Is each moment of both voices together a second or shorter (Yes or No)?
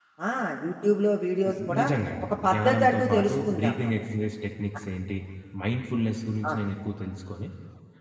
No